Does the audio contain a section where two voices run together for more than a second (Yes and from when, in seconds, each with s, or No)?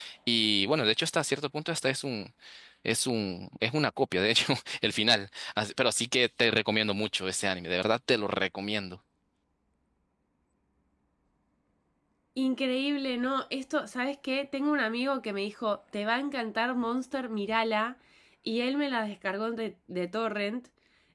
No